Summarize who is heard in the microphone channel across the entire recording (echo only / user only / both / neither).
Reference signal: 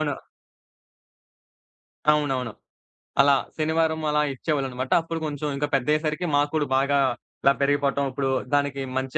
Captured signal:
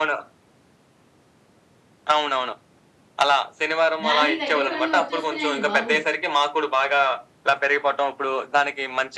both